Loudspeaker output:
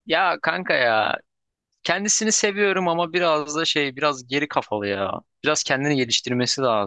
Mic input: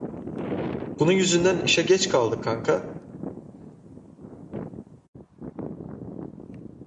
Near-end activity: present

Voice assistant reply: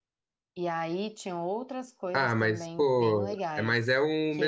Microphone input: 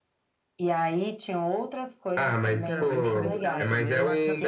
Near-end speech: present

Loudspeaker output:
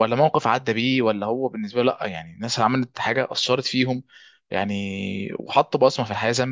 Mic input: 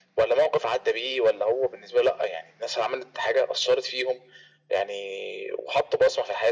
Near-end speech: none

